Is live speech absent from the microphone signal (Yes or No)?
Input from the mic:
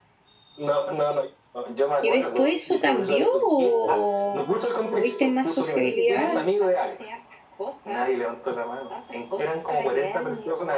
No